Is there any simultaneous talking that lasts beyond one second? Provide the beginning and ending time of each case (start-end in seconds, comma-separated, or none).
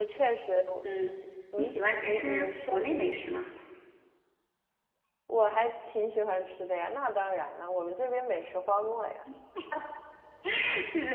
1.6-3.2